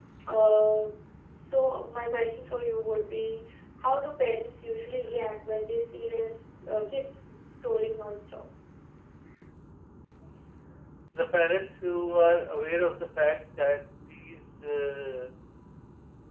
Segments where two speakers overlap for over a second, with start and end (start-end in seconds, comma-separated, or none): none